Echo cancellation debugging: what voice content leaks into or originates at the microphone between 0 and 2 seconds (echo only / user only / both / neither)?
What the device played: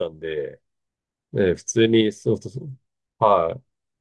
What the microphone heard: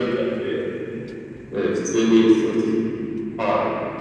echo only